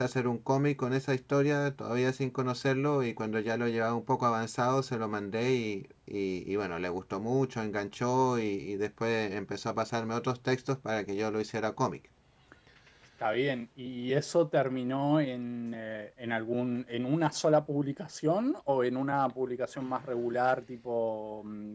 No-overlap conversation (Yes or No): Yes